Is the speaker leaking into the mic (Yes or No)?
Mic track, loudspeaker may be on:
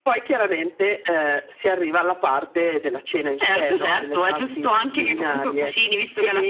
Yes